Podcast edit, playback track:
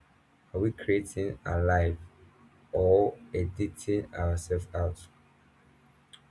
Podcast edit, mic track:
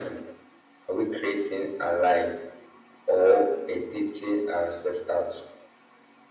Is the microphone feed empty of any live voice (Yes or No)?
Yes